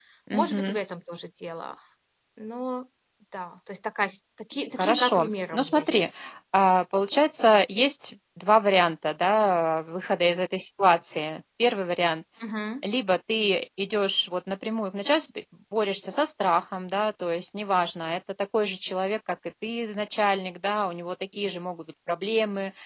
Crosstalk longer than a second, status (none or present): present